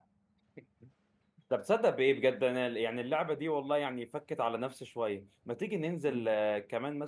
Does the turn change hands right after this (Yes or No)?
No